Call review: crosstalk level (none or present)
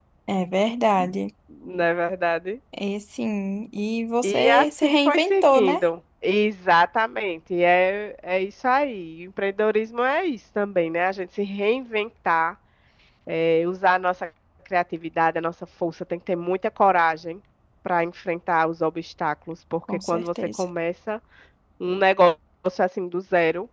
present